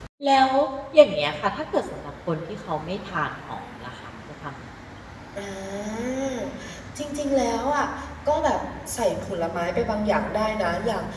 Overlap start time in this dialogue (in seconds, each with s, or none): none